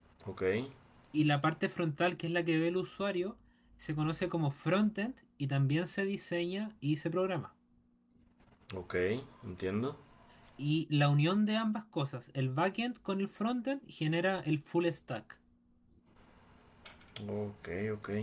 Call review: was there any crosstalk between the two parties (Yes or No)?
No